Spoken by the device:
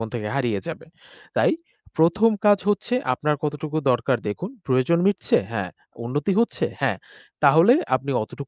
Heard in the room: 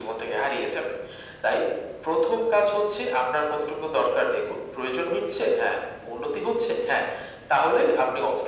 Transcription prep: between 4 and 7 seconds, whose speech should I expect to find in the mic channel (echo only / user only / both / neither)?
echo only